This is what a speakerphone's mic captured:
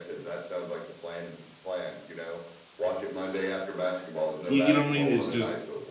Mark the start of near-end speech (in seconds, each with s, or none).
4.5 s